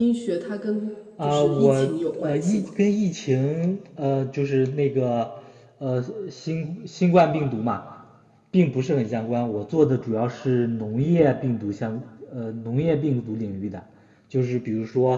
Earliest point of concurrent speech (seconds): 1 s

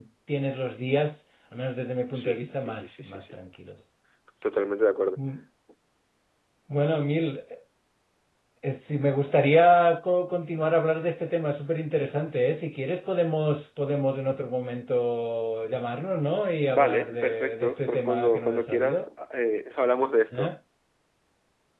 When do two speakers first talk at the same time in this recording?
2 s

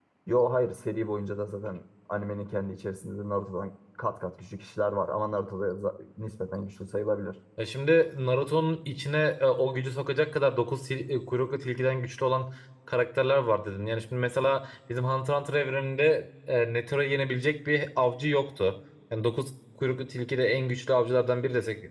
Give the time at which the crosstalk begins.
none

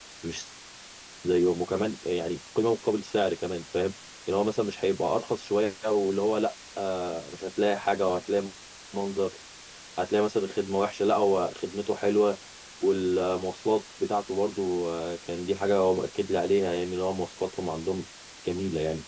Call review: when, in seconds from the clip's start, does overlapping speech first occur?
none

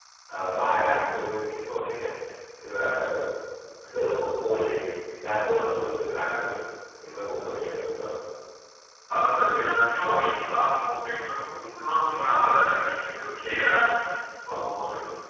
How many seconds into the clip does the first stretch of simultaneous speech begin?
none

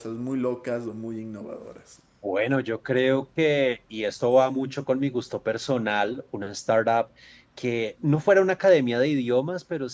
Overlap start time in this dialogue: none

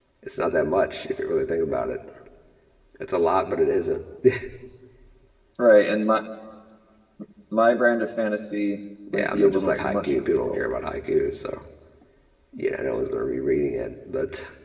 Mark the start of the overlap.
9 s

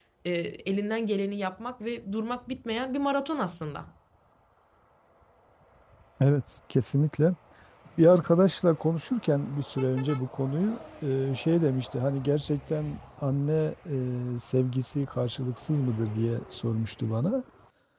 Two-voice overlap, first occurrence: none

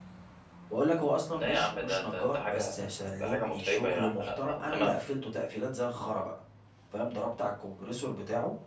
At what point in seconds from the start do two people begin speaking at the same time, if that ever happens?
1 s

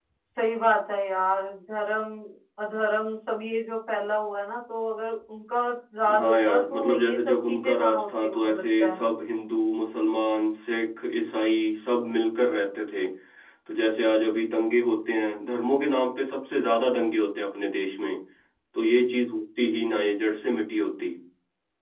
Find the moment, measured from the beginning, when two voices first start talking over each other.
6 s

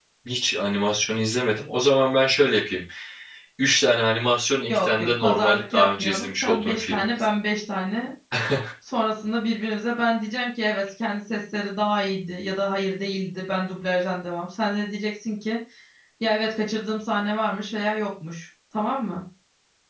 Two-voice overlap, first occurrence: 5 s

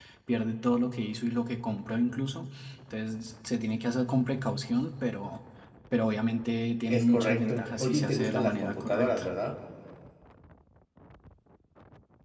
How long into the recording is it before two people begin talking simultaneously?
7 s

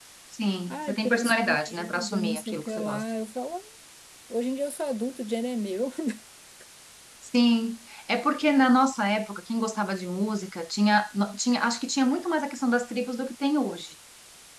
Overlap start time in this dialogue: 1 s

